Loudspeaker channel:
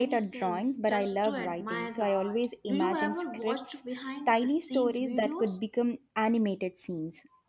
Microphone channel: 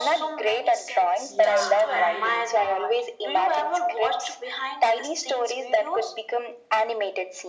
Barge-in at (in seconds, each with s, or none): 1.3 s